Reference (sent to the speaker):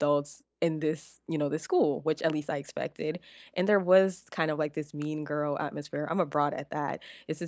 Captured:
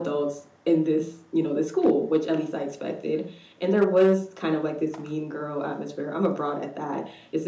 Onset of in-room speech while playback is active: none

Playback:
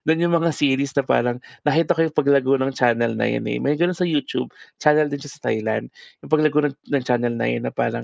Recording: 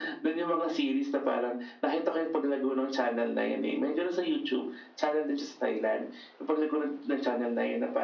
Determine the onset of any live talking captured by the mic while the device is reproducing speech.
none

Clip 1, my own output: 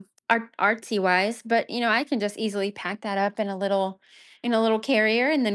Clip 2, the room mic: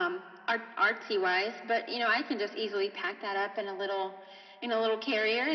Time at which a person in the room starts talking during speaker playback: none

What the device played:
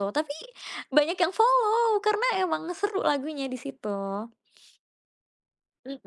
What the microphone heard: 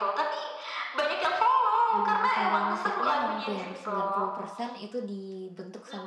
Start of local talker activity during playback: 1.9 s

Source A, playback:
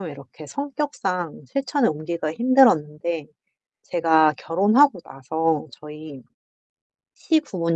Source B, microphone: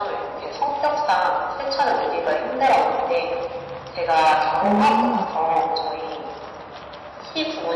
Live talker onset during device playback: 4.6 s

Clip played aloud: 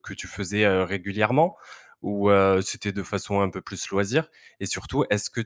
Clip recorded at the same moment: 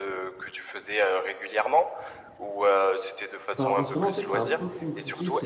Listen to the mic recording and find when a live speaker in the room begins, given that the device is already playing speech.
3.6 s

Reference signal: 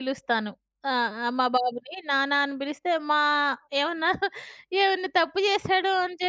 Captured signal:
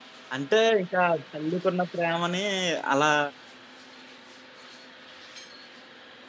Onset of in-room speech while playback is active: 0.3 s

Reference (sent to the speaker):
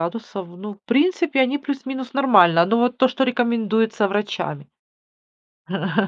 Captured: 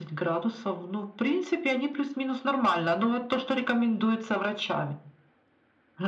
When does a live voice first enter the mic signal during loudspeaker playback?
none

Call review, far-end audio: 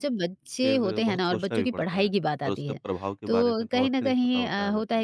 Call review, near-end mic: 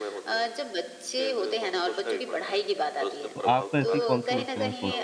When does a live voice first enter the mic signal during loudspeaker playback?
3.3 s

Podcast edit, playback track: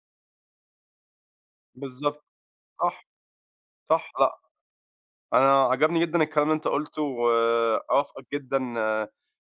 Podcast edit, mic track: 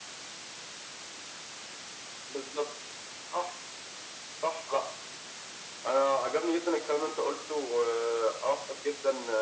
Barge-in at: none

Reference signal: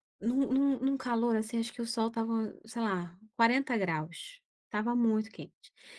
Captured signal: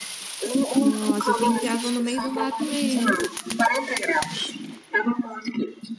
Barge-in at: 0.8 s

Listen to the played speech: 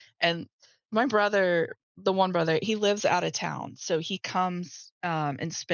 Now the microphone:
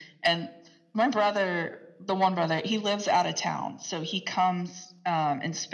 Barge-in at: none

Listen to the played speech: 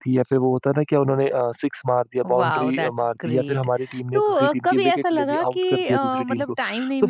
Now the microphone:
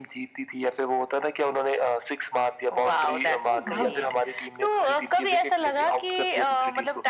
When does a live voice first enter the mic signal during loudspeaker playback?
3.5 s

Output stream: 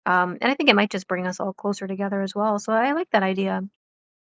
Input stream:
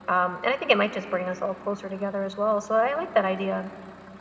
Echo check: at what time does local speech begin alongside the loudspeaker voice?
none

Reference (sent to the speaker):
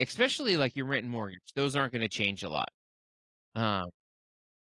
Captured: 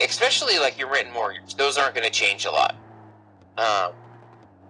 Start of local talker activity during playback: none

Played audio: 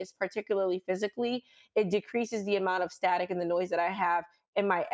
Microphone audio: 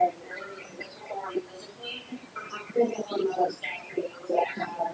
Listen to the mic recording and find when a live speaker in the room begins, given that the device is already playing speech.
none

